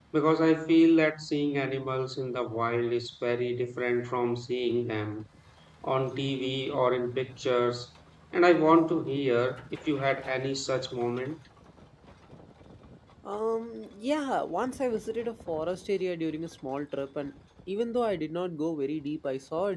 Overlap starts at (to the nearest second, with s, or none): none